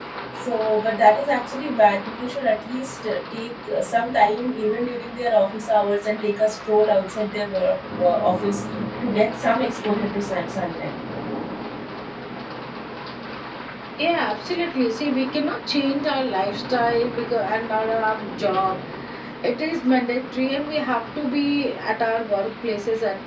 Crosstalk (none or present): none